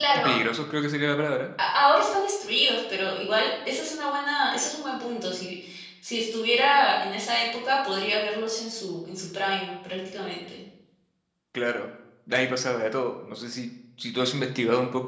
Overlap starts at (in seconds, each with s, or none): none